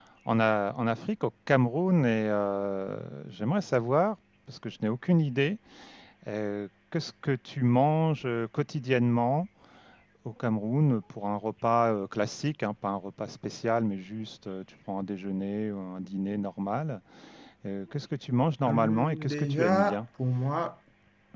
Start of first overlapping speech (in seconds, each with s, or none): 18.7 s